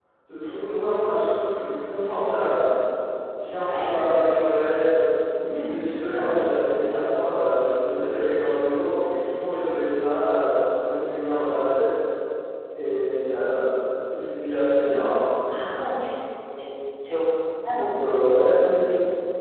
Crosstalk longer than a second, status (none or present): none